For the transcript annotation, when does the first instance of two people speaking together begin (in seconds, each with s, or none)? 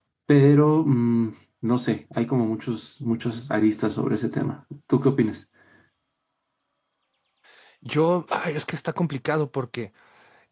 none